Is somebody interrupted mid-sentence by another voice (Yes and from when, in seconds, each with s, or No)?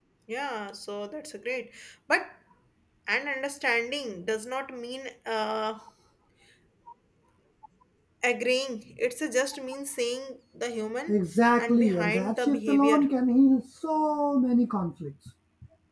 Yes, from 11.6 s